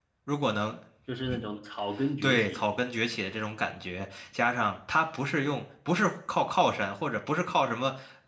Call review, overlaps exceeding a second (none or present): none